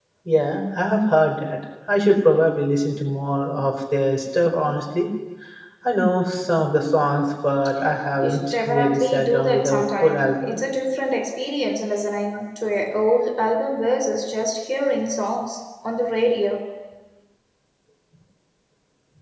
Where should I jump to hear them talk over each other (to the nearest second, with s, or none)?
8 s